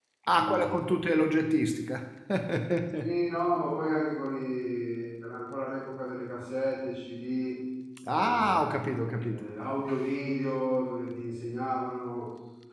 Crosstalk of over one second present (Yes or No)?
Yes